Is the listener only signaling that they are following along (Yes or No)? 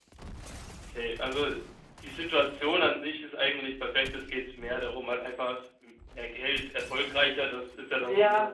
No